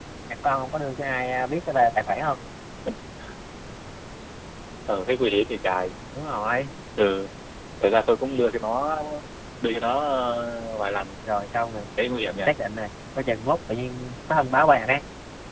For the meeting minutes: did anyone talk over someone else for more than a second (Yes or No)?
No